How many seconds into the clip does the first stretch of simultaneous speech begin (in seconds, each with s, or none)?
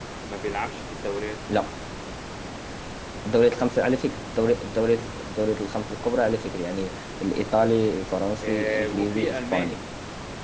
8.4 s